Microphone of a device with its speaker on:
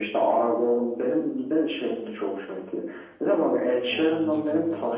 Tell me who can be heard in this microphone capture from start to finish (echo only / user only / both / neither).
both